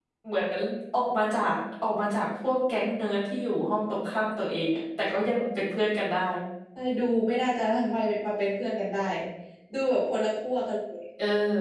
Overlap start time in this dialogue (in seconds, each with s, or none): none